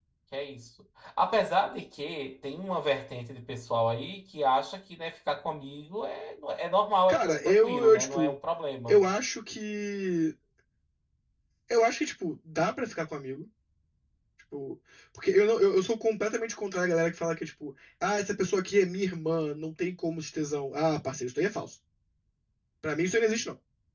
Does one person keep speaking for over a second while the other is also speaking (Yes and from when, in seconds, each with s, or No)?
Yes, from 7.1 s